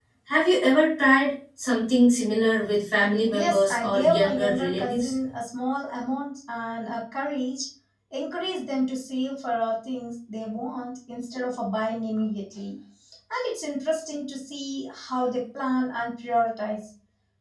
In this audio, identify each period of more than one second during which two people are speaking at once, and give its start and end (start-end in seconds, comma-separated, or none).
3.3-5.1